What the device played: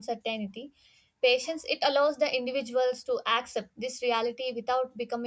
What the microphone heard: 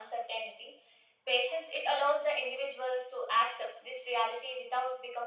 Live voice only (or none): none